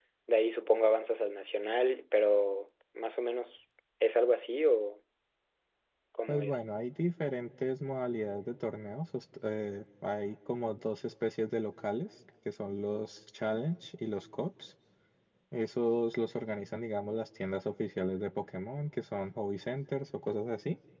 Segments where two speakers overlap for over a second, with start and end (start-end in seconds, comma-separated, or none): none